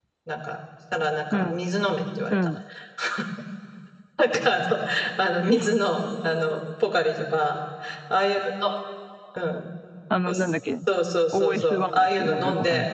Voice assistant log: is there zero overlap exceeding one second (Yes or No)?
No